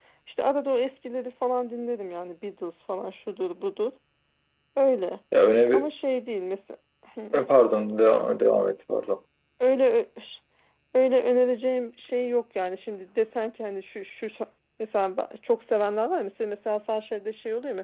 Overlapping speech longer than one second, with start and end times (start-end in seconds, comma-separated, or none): none